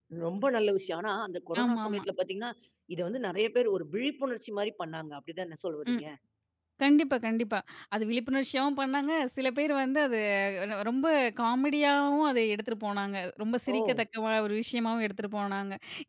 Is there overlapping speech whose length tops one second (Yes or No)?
No